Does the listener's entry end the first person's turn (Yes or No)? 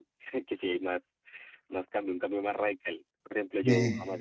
No